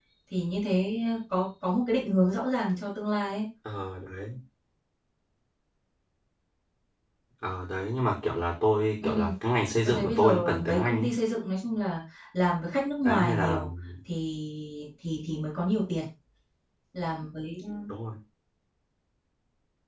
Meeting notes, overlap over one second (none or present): present